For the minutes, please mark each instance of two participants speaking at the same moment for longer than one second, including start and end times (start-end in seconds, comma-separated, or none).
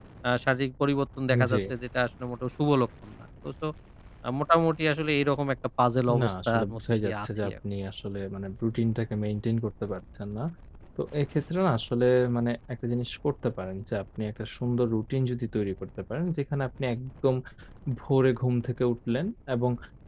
6.2-7.5